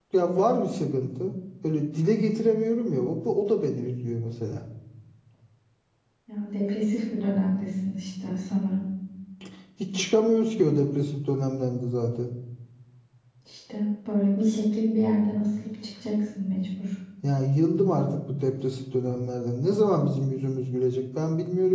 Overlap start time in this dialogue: none

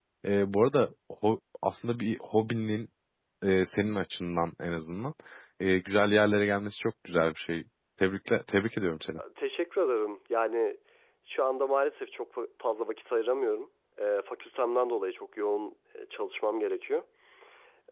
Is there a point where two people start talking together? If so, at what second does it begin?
none

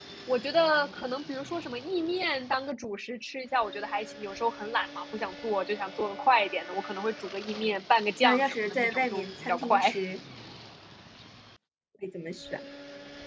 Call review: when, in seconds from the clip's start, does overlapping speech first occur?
8.2 s

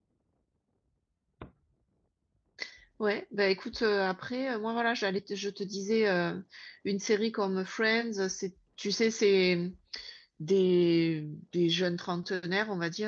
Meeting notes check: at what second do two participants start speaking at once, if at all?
none

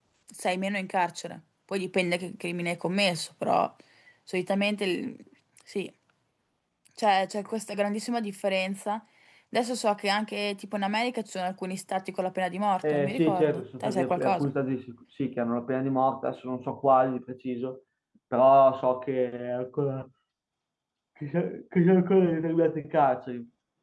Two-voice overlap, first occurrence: 12.8 s

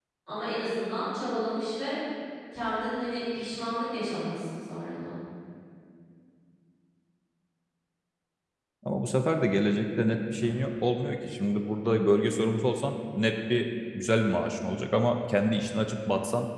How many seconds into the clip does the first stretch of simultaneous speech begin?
none

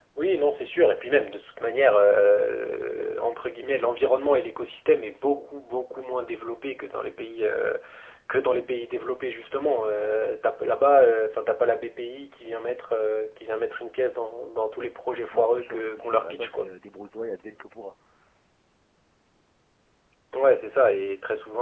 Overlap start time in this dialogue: 15.3 s

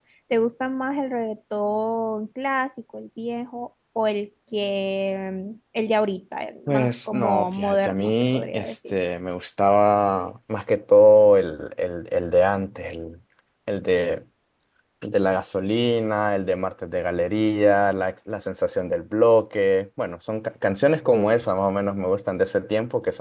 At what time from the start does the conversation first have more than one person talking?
6.7 s

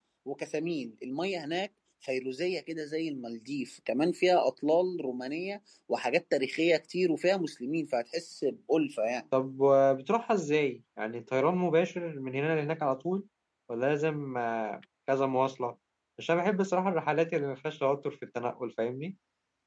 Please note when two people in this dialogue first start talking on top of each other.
none

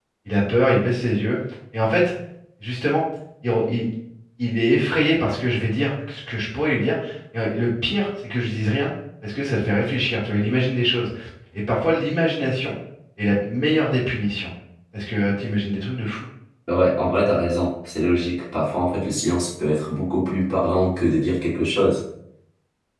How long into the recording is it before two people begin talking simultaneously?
none

